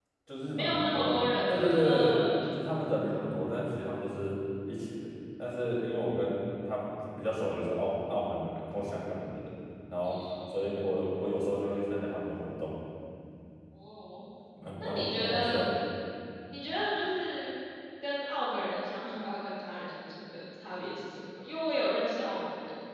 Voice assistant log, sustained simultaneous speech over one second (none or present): present